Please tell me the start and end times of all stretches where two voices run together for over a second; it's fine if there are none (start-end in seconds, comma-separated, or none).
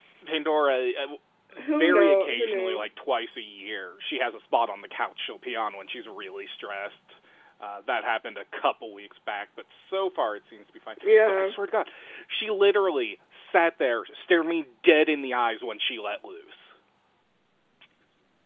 1.6-2.8